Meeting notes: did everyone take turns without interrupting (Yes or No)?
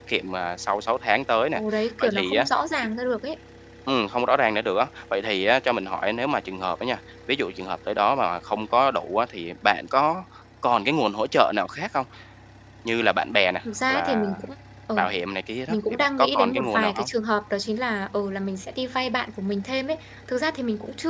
No